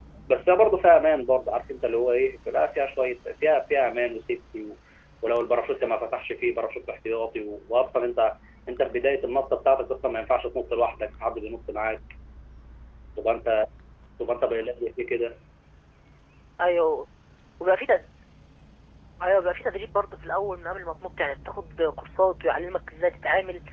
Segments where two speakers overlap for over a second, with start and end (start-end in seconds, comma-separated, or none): none